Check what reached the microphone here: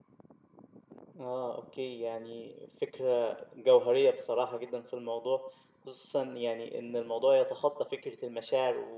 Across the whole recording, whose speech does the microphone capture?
user only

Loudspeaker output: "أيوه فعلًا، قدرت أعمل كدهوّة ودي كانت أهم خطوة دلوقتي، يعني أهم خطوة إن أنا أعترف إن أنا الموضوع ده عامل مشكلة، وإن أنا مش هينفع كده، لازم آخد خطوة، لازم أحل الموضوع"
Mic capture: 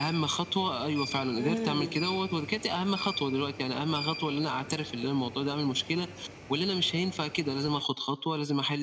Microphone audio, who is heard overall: both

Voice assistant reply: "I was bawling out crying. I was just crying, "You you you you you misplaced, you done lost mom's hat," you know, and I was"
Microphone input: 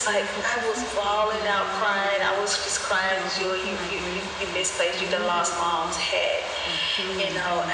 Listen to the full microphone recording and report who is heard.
both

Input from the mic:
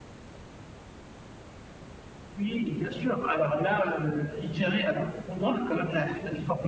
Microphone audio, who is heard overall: echo only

